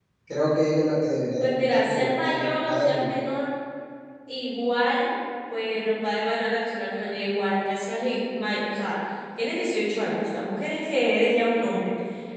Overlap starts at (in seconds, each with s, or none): 1.4 s